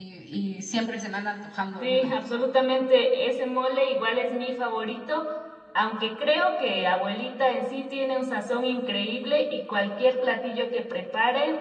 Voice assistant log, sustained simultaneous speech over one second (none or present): none